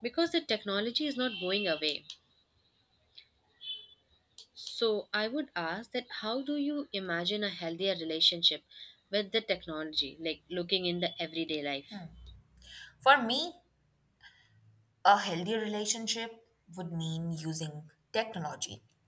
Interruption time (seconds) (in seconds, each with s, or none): none